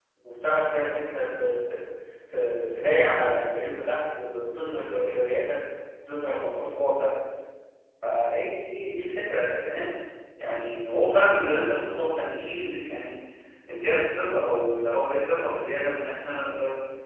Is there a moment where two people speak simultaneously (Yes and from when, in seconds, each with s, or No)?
No